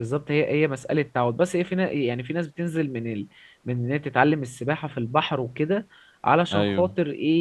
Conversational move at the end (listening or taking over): listening